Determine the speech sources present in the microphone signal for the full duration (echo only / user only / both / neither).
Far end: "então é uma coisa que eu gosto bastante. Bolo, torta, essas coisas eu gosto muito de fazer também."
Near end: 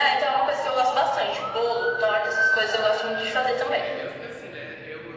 both